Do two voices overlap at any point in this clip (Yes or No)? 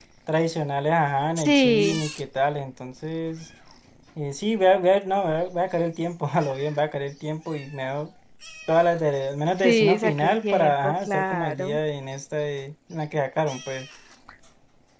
Yes